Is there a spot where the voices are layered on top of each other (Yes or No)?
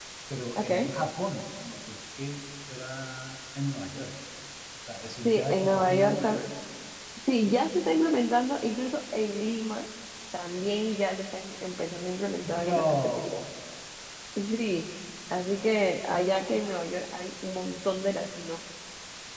Yes